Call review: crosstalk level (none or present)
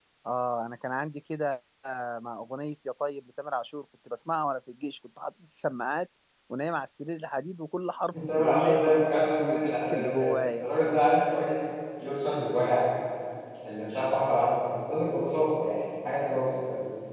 present